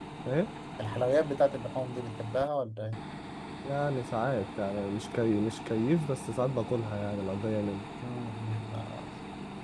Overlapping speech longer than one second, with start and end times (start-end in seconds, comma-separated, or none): none